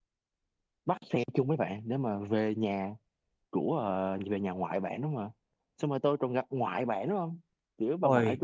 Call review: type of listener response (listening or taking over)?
listening